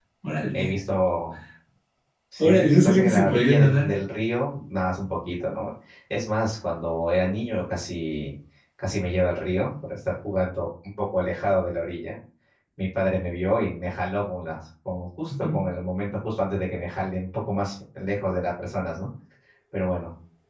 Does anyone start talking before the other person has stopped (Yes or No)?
Yes